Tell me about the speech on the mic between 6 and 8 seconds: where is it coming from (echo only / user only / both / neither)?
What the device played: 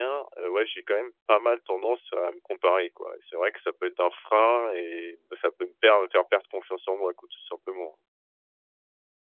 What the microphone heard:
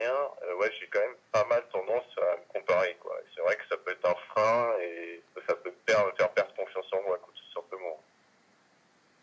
echo only